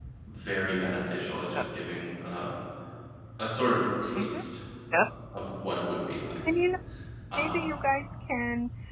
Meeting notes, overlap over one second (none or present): none